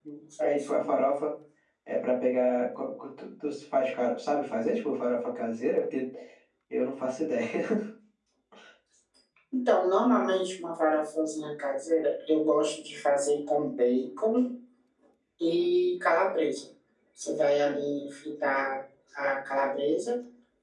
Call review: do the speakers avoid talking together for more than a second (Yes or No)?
Yes